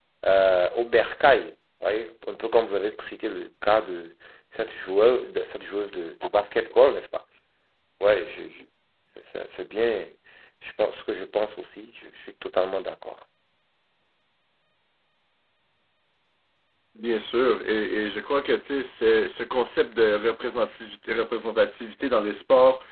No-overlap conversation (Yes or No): Yes